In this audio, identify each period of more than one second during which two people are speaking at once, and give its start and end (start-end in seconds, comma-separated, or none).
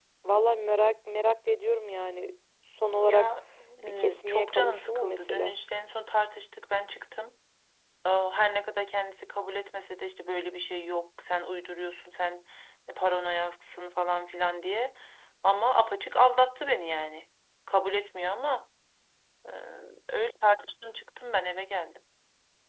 4.0-5.5